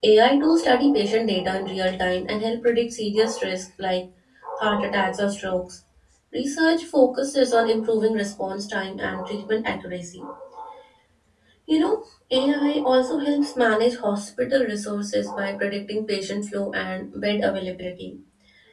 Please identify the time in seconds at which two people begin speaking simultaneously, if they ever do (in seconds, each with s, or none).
none